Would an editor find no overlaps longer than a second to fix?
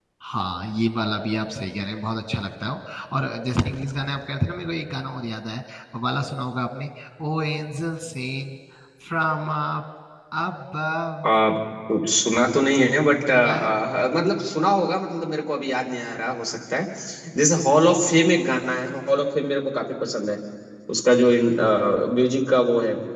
Yes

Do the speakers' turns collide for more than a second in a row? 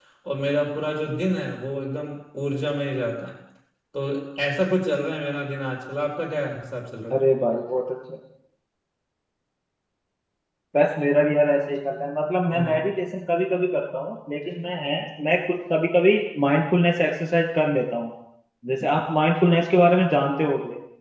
No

